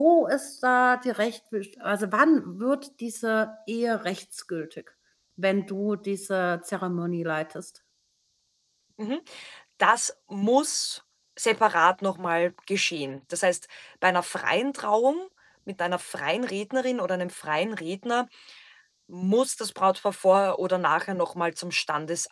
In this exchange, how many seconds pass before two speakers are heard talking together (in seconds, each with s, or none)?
none